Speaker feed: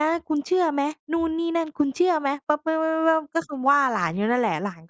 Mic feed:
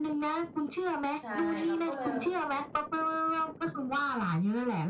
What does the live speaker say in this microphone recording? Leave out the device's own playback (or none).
ใช่เราก็เลย